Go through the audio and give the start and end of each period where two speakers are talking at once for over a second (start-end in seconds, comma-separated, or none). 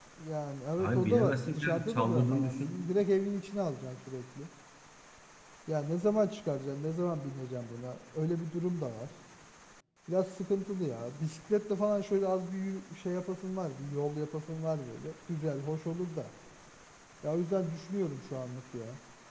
0.8-2.7